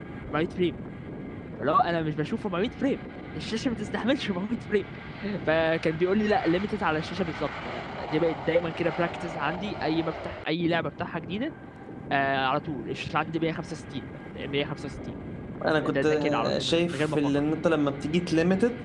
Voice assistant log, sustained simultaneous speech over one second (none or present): present